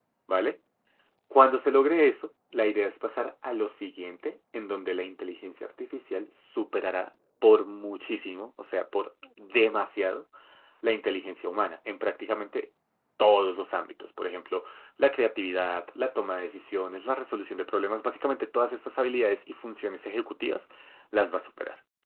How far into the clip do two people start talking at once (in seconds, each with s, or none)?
none